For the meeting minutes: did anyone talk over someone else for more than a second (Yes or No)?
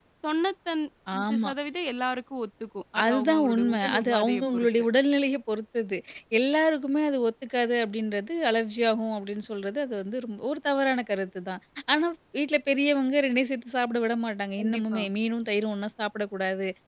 Yes